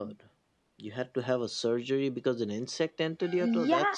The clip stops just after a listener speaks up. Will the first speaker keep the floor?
No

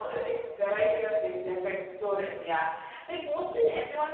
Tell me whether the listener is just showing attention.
Yes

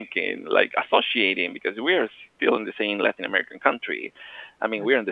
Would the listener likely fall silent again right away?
Yes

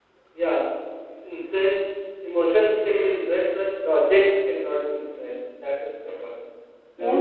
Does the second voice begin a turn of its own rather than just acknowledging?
Yes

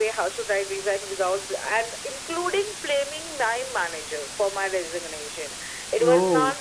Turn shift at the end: No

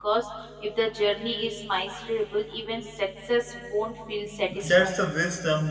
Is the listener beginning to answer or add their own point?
Yes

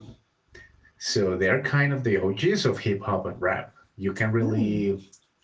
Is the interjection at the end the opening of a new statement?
No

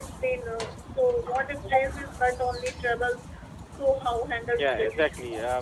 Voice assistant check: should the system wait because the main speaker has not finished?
No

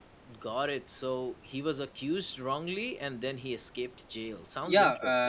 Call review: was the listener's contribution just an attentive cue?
No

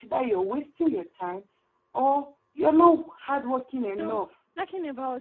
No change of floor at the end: No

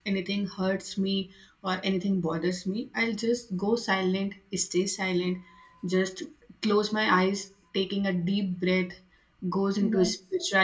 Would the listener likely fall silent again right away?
Yes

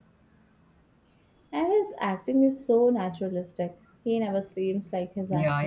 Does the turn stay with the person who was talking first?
No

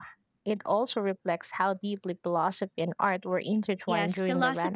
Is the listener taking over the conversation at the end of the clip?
Yes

